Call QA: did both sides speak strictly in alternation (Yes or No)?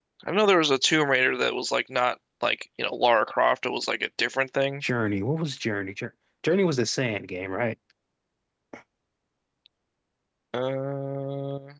Yes